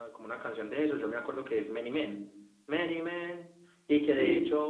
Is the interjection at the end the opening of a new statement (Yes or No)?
No